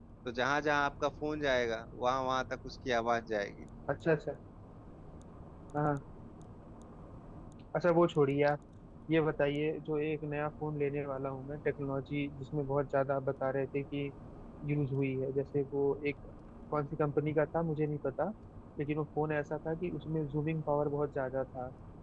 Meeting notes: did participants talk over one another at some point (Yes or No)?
No